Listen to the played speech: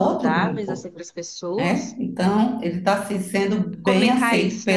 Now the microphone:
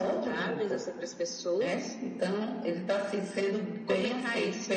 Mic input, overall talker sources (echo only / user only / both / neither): echo only